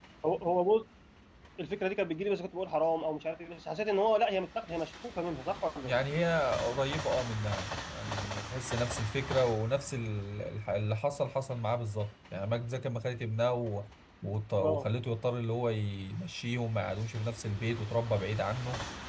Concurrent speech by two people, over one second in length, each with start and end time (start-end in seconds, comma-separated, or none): none